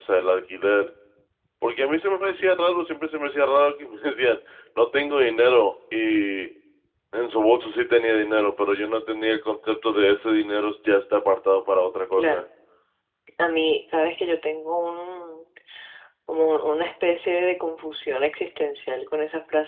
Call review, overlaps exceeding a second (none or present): none